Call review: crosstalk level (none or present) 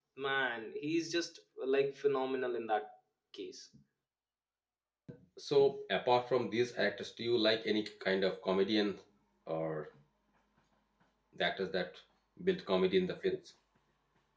none